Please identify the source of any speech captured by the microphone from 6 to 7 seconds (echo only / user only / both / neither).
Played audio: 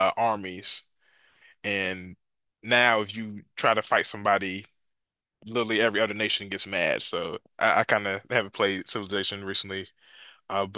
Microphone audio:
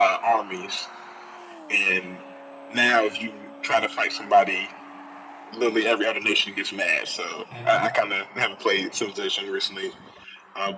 echo only